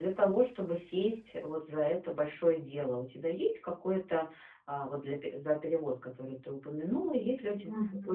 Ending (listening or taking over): listening